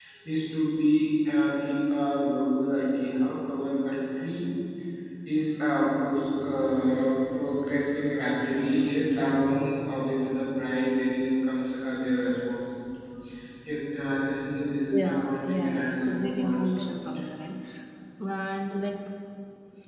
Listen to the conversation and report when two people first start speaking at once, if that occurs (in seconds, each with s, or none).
14.9 s